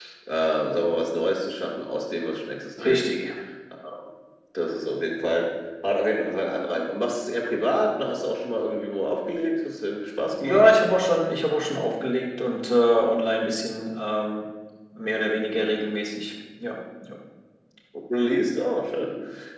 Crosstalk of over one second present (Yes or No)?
No